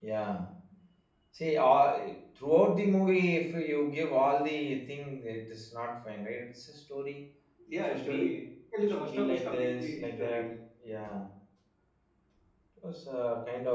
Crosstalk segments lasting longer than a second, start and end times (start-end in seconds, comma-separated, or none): 8.8-10.4